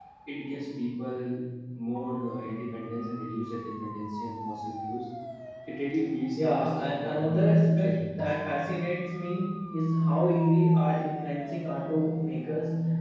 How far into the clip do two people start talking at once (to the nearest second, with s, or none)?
6 s